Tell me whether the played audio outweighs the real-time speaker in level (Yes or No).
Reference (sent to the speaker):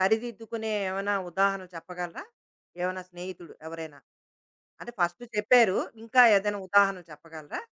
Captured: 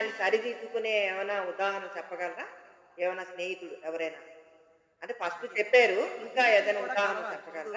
Yes